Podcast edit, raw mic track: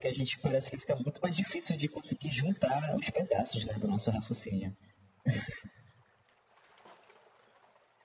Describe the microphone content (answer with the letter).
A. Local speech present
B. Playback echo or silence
B